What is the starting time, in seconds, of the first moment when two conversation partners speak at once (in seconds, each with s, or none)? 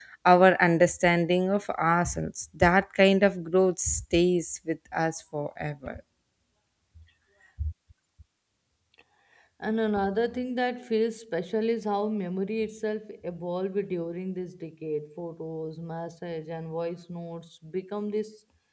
none